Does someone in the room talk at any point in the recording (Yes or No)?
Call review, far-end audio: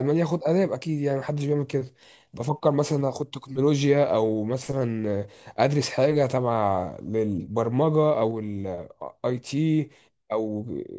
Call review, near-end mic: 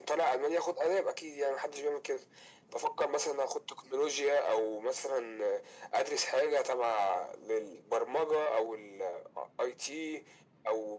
No